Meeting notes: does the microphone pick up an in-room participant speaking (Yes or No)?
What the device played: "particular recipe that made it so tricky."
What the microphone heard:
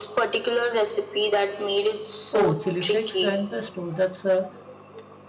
Yes